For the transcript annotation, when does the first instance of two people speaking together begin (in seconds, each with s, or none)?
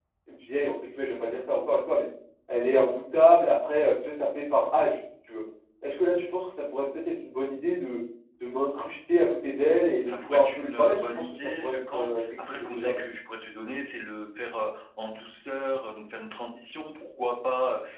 10.0 s